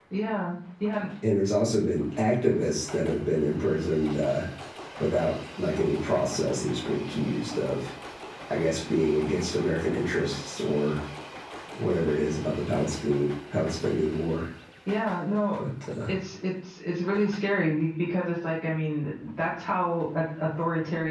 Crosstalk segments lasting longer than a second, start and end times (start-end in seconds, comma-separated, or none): none